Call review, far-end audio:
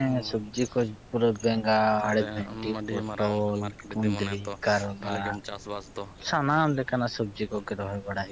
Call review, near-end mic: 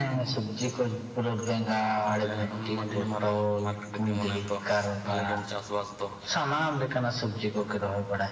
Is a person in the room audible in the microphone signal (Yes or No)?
No